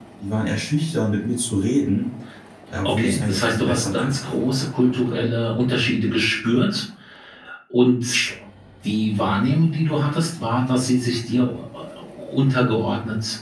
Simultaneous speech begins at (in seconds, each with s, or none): 2.8 s